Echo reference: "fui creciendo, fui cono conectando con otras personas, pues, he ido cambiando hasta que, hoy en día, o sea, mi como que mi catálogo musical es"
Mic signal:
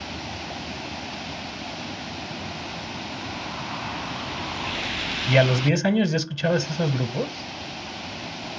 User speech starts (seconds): 5 s

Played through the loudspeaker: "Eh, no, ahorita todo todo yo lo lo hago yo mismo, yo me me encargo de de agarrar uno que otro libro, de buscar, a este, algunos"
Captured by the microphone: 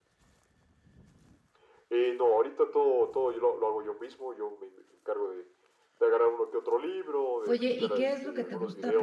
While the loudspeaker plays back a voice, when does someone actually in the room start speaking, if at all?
7 s

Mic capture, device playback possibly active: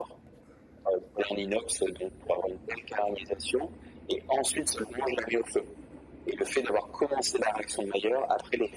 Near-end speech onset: none

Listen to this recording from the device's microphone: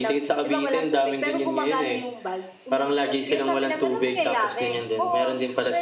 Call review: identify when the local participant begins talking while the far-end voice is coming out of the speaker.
none

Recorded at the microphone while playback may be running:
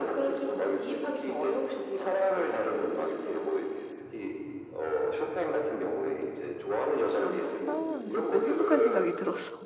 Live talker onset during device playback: 7 s

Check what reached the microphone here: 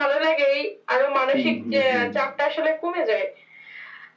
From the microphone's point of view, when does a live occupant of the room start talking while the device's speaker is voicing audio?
1 s

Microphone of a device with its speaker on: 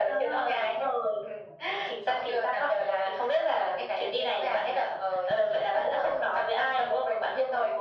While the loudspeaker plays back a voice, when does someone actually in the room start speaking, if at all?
none

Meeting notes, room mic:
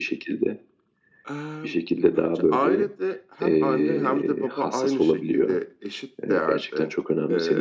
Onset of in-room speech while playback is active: none

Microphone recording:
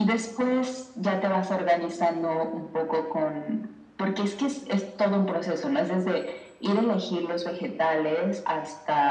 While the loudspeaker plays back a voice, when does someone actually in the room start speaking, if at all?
none

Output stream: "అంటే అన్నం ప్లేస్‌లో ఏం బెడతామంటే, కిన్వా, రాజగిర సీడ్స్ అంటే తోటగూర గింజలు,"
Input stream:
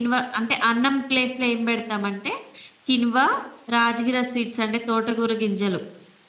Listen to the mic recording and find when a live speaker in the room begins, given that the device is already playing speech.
none

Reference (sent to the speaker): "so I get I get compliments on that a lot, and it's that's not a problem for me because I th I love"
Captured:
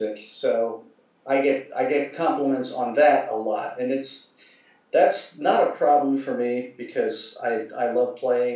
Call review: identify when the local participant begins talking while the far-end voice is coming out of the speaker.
none

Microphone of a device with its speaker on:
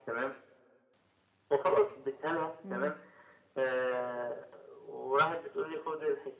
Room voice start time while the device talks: 3 s

